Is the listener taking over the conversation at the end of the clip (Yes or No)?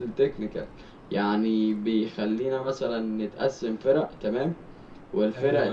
No